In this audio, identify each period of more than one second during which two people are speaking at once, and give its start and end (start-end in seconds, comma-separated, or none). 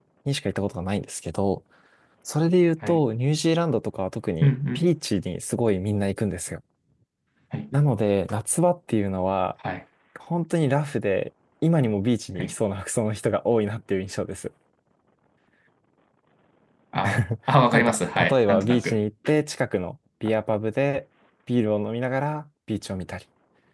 17.7-19.0